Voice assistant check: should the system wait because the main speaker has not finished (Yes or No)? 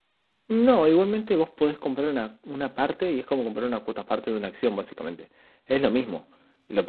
Yes